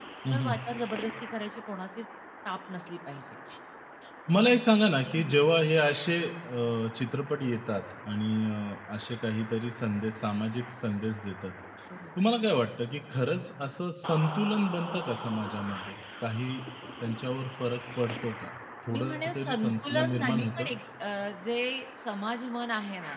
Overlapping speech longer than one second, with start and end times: 18.9-20.7

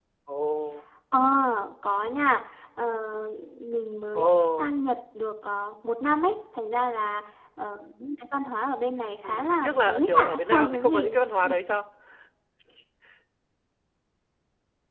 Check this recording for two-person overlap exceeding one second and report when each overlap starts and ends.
9.2-11.2

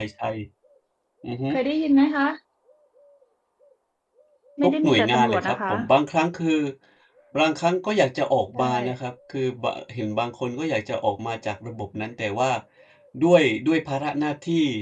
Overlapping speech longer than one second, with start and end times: 4.6-5.8

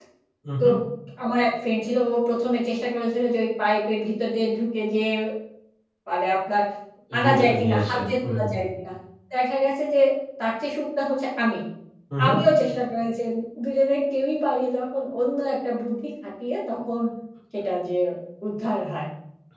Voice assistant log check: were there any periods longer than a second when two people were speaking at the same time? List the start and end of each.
7.2-8.5

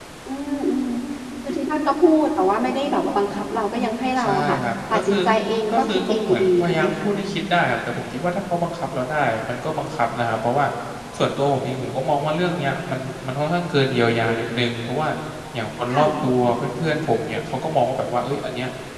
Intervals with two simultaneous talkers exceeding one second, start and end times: 5.7-7.3

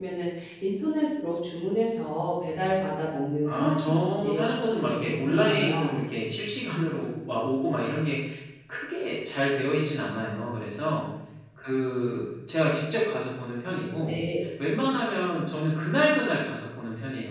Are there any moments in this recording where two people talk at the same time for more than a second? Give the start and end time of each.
3.4-5.9

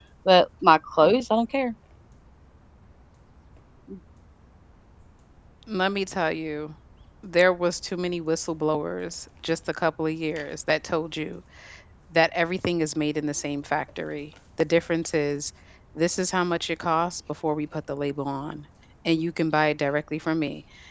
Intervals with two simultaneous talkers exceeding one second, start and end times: none

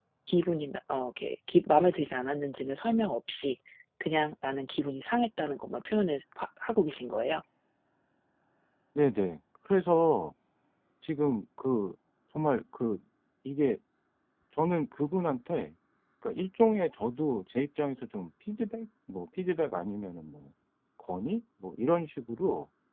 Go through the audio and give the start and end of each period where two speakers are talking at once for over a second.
none

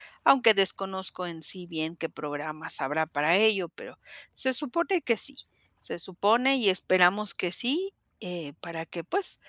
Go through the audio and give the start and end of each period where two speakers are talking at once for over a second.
none

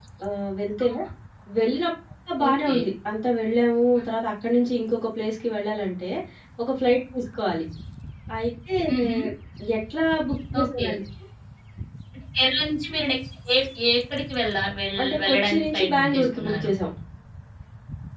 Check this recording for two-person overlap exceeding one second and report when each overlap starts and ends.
15.0-16.7

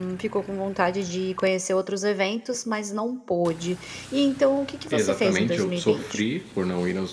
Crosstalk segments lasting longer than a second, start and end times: 4.9-6.2

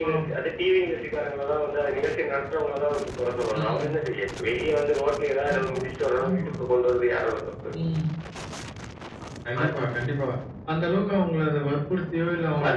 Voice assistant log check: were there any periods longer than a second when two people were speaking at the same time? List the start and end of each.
none

